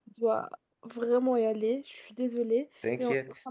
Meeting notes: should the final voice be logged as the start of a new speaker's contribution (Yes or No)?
No